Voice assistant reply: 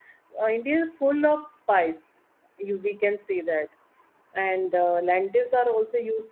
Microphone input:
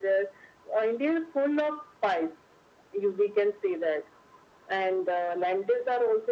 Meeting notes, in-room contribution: none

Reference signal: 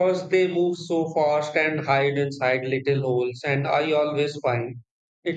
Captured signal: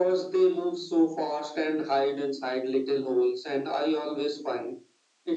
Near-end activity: none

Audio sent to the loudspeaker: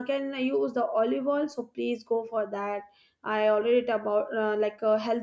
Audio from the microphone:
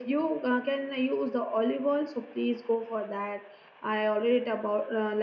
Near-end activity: none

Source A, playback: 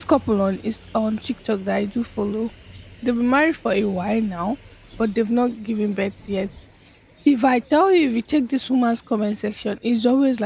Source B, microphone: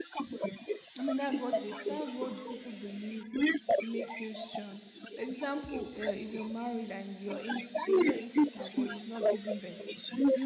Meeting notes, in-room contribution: present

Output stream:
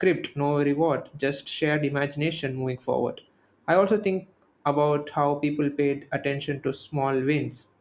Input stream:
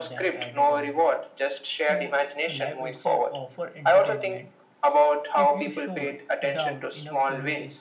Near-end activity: present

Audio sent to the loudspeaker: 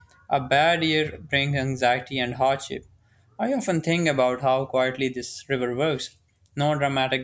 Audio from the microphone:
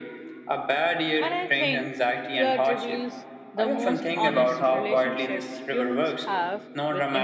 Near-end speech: present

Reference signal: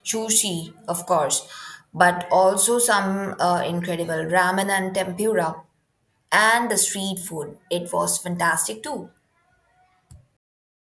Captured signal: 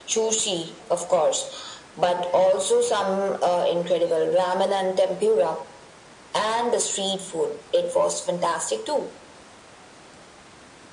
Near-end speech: none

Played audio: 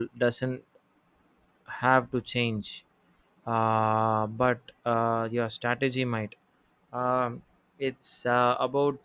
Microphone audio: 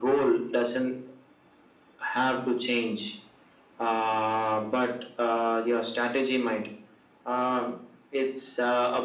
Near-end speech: none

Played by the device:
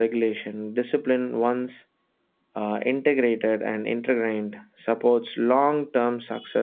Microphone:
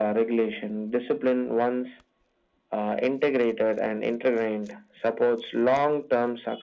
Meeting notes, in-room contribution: none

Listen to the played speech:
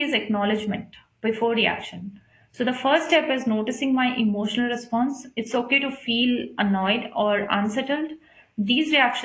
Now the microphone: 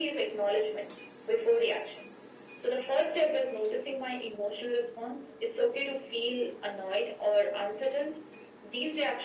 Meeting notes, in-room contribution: none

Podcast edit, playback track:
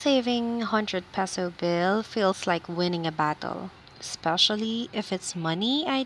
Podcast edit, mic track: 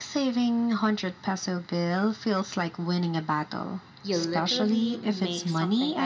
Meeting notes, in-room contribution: present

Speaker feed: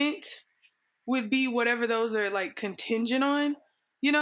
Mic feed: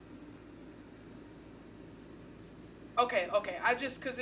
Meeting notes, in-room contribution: present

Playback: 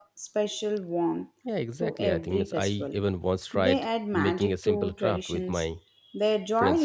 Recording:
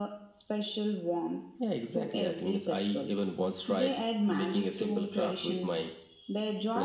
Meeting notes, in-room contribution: none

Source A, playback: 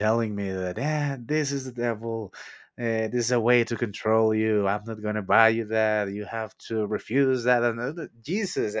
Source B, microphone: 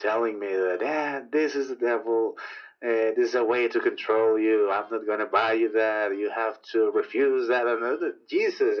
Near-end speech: none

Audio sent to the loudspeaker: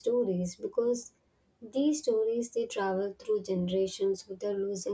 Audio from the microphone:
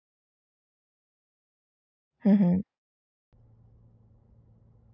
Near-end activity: present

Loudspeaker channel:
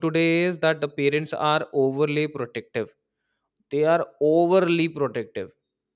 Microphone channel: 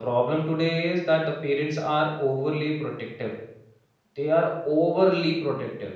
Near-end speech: none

